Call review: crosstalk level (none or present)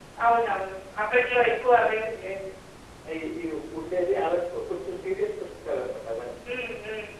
none